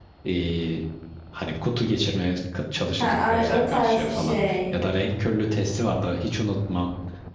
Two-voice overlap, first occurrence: 3.0 s

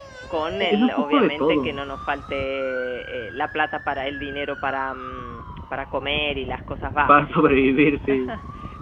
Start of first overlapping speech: 0.6 s

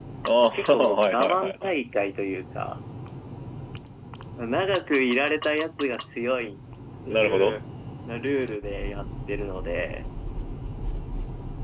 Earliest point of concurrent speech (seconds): 0.5 s

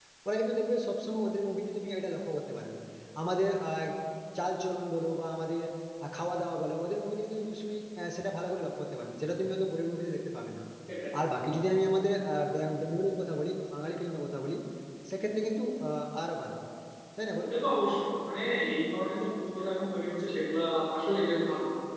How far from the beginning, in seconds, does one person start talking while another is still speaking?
none

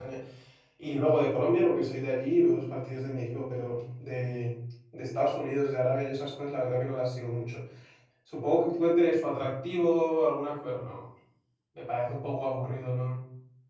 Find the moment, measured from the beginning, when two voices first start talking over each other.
none

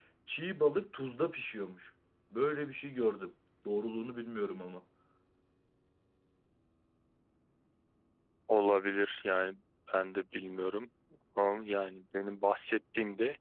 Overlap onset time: none

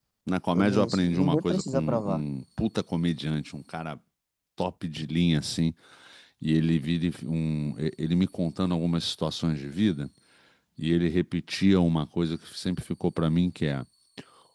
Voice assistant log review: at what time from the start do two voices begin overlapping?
0.5 s

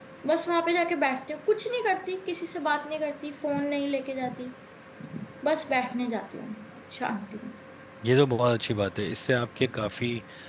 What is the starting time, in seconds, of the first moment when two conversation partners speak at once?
none

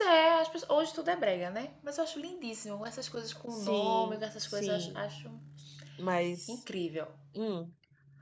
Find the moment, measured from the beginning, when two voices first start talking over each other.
3.5 s

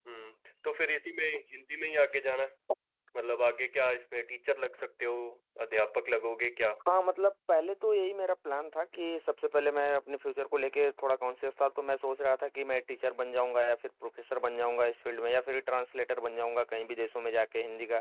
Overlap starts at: none

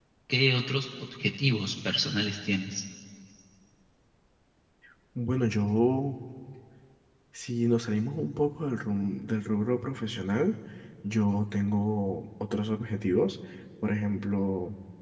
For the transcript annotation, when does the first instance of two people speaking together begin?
none

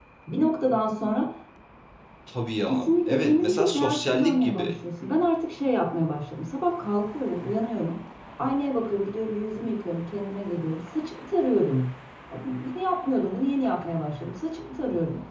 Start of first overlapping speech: 2.7 s

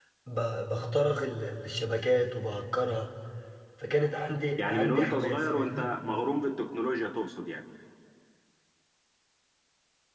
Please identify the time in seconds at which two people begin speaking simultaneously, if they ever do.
4.7 s

